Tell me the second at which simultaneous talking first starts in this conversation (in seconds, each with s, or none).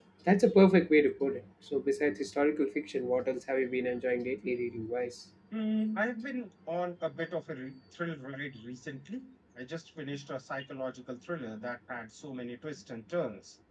none